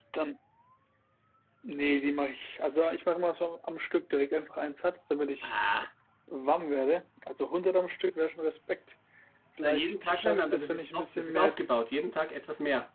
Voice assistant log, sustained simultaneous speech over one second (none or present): present